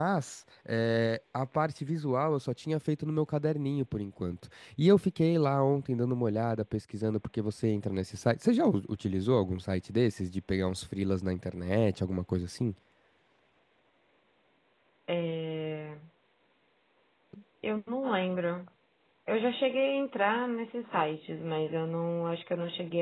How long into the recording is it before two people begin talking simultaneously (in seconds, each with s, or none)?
none